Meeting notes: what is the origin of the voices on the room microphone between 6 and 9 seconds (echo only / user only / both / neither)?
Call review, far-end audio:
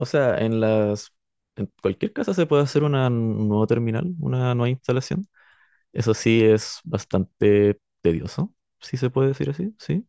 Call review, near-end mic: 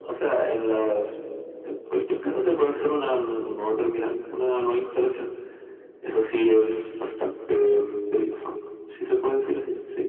echo only